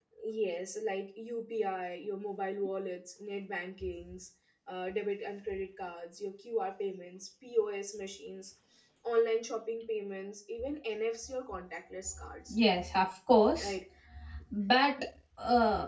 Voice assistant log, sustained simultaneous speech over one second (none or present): none